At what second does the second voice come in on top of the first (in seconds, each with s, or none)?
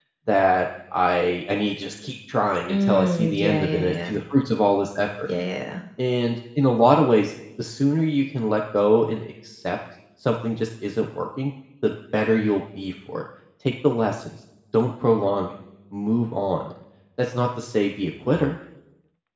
2.7 s